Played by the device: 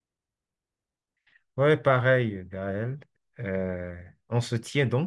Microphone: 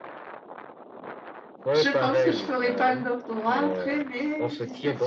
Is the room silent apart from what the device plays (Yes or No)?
No